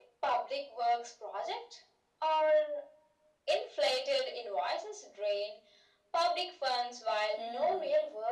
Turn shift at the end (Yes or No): Yes